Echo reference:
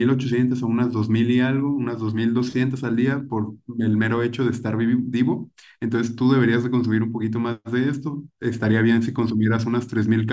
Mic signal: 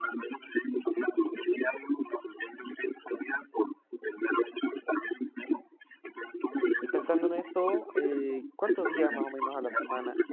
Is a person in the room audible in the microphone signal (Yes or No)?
Yes